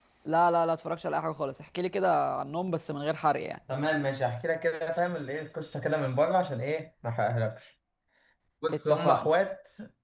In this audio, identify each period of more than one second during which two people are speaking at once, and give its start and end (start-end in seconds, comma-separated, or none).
none